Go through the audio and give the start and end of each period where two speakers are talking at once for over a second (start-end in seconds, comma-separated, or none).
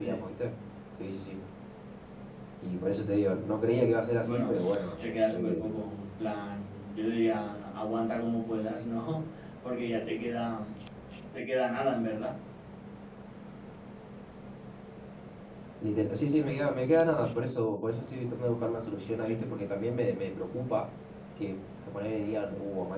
4.2-5.7